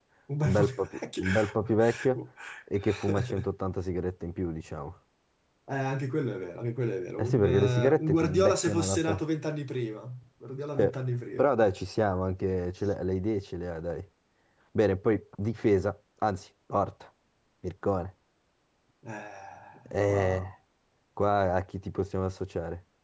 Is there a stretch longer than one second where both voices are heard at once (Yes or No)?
Yes